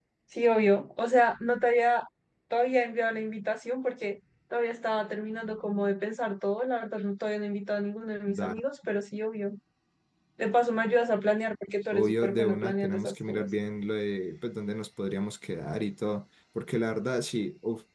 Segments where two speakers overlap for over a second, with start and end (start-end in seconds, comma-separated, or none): 11.9-13.5